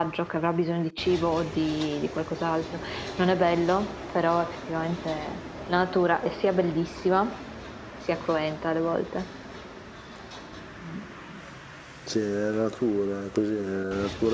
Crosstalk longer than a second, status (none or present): none